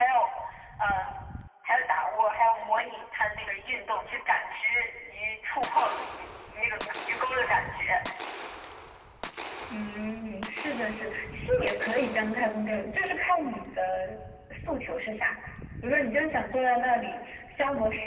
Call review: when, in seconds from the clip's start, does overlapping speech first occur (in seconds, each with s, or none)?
none